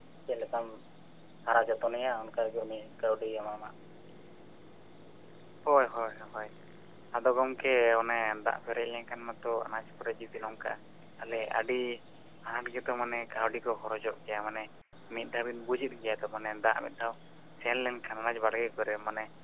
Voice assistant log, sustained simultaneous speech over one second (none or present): none